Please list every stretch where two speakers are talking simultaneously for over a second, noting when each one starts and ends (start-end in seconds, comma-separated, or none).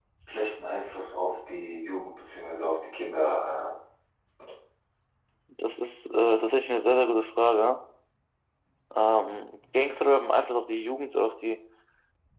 none